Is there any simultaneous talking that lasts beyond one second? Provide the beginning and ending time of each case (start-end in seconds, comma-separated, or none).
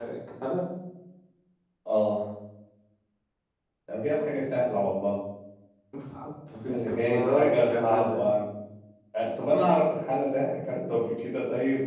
6.6-8.3